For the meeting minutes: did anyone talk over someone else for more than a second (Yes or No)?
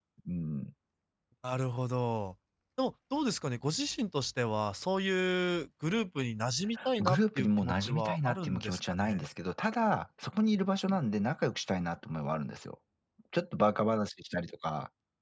Yes